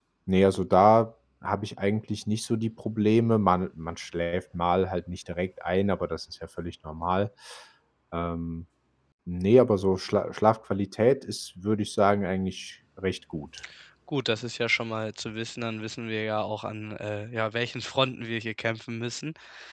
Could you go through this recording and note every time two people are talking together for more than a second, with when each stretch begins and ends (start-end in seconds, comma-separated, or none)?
none